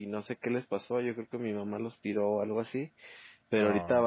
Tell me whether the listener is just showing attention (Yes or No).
Yes